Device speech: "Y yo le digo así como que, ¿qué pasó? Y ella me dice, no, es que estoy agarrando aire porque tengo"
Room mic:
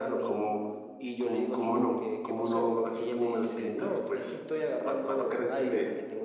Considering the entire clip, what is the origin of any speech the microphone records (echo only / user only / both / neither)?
both